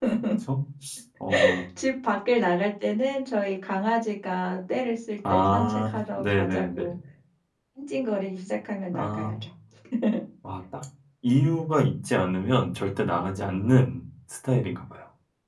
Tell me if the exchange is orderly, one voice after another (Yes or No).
No